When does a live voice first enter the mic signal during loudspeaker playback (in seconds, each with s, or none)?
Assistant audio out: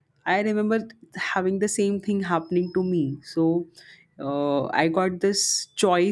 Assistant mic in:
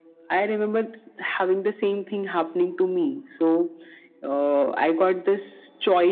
none